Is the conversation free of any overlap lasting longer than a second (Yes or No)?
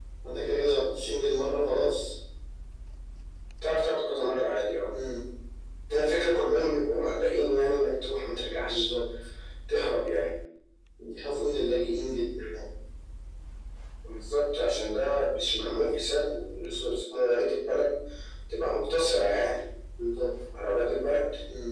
Yes